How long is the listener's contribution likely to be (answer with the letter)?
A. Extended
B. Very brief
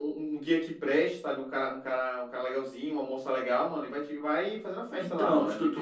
A